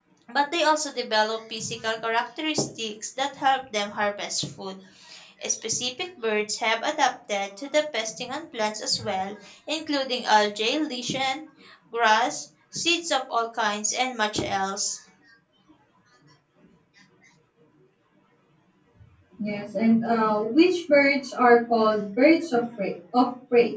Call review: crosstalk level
none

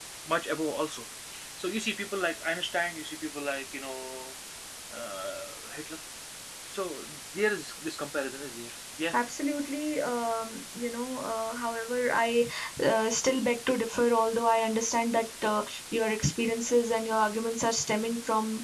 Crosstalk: none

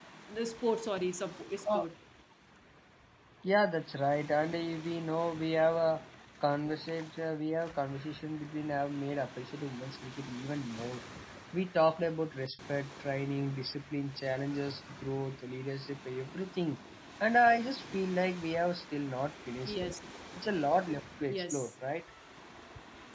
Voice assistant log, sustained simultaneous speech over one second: none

